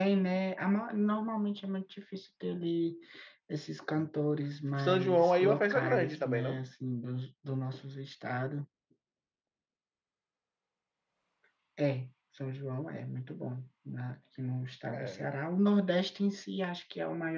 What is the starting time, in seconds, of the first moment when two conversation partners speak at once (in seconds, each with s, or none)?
4.8 s